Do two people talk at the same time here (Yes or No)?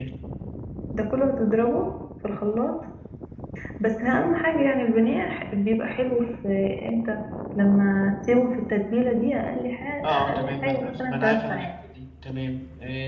Yes